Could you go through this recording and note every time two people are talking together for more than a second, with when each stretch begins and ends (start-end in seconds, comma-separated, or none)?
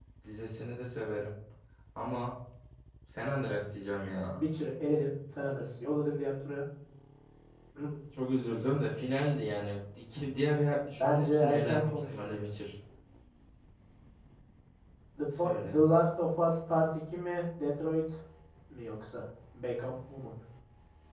10.9-12.5